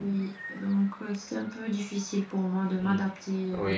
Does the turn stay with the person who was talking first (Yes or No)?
No